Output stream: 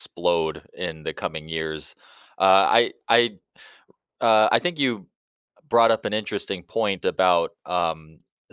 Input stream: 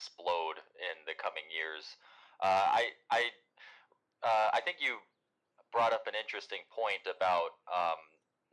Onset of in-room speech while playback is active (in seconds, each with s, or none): none